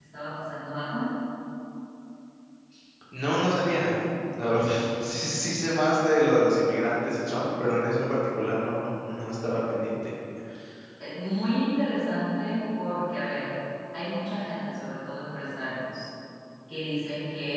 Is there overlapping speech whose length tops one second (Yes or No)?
No